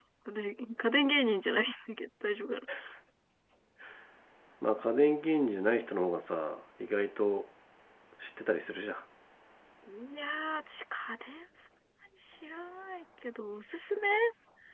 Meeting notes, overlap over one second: none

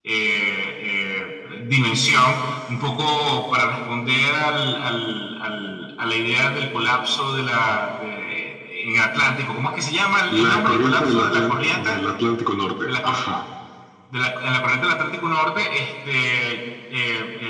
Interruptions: present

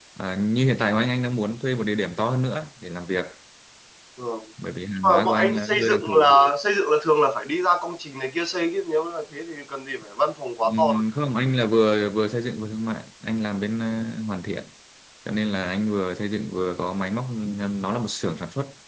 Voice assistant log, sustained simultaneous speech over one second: present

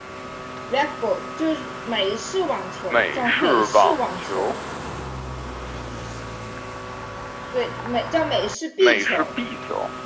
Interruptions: present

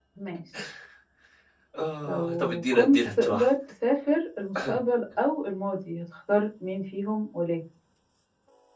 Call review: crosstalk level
present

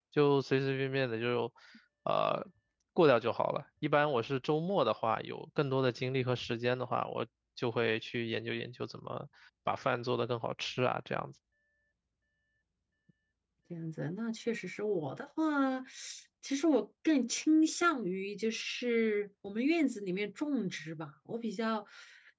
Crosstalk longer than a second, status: none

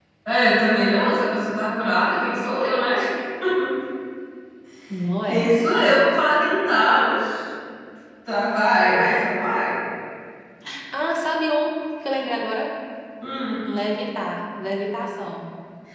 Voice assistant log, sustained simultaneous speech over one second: none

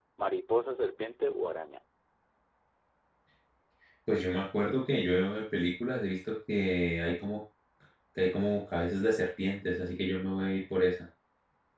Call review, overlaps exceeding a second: none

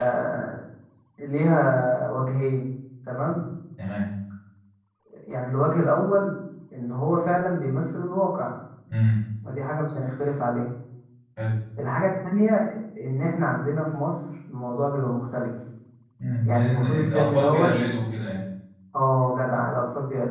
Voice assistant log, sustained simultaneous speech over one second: present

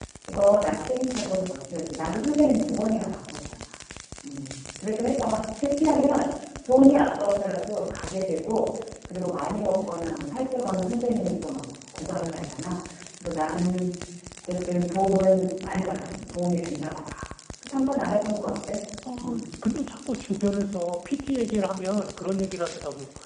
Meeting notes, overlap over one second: none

